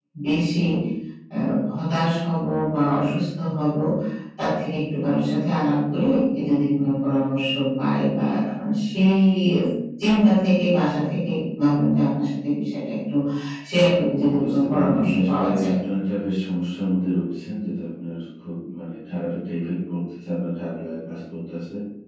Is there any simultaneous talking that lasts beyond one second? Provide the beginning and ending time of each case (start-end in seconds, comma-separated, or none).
14.4-15.7